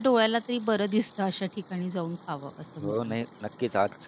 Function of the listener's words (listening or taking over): taking over